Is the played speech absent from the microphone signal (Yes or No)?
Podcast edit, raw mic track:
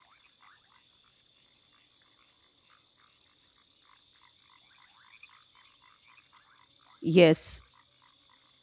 Yes